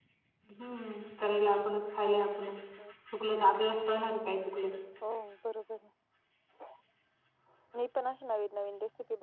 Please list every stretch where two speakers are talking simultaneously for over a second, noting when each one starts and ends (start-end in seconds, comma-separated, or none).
none